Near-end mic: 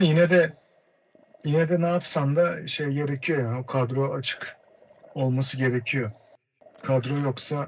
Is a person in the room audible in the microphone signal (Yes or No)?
No